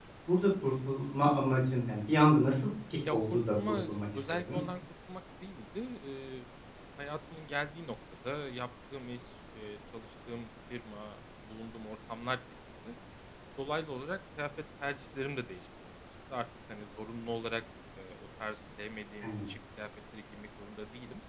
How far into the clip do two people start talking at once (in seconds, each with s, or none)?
3.1 s